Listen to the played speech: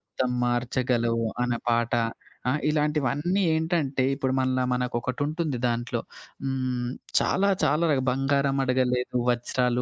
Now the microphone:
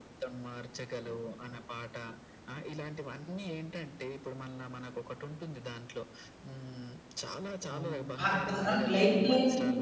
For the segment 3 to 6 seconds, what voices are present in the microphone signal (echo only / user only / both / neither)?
echo only